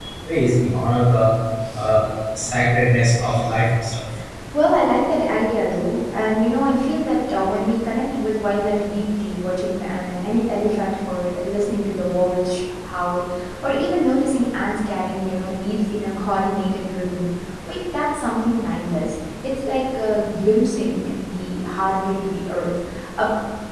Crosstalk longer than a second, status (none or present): none